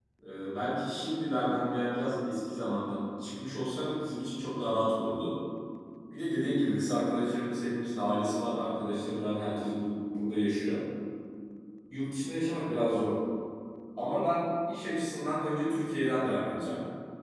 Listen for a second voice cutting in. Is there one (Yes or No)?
No